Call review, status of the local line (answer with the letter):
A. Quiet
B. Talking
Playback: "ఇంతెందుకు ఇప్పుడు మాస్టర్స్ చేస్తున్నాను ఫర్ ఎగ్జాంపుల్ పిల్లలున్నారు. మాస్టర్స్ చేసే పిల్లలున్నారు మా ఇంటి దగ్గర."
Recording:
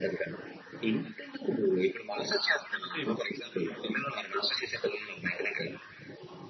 B